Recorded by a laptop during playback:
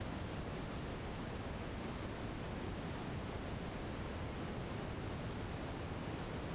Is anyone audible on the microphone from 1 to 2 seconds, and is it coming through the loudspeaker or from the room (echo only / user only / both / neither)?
neither